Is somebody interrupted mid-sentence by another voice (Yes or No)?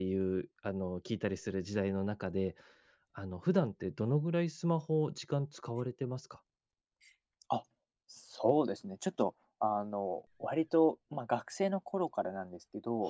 No